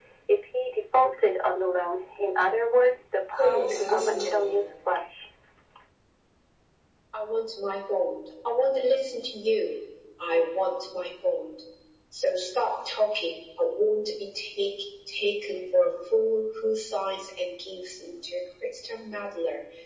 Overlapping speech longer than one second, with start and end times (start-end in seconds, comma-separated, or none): 3.4-4.7